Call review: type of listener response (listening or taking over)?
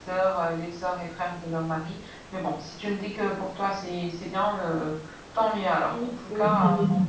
taking over